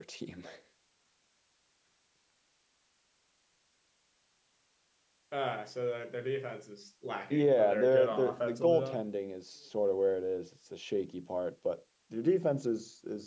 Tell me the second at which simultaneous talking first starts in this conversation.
7.3 s

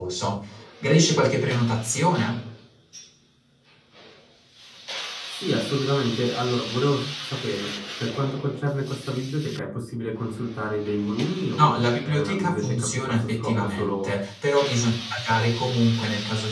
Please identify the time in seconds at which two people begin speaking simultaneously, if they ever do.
11.6 s

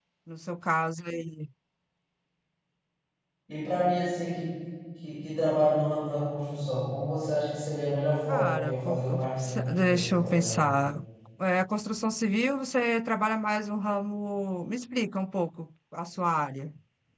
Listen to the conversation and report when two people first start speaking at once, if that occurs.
8.3 s

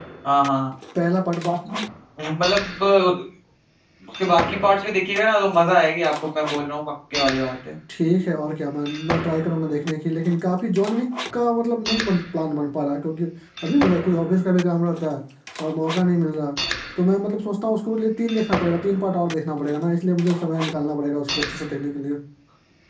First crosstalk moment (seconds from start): none

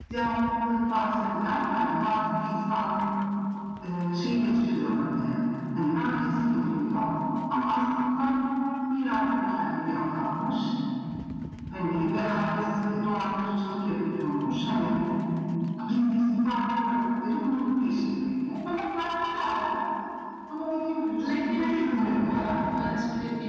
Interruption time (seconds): 21.2 s

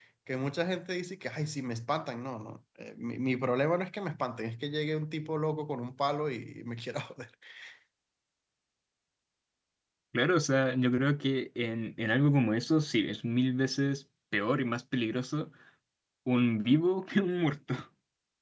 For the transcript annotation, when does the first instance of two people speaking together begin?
none

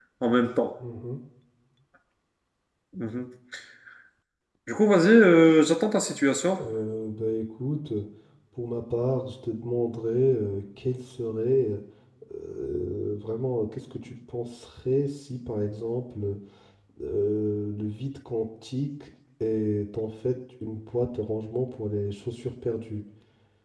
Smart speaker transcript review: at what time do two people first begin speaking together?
none

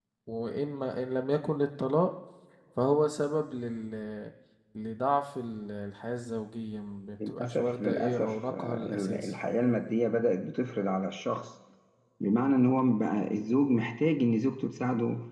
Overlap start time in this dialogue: 7.2 s

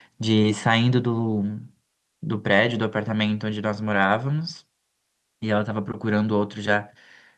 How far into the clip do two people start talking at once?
none

